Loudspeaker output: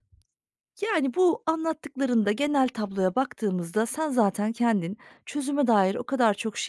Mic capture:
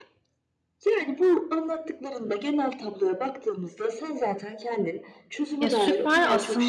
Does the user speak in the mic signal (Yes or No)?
Yes